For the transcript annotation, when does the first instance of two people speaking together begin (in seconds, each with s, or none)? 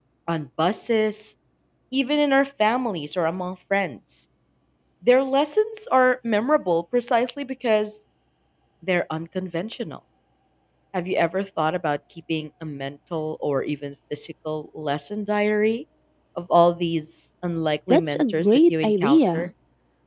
17.9 s